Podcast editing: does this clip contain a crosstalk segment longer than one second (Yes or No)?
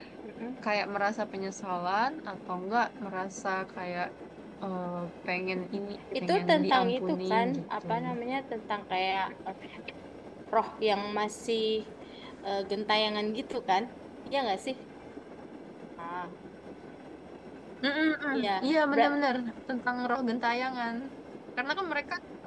Yes